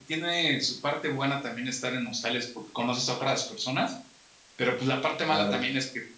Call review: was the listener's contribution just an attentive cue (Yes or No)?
Yes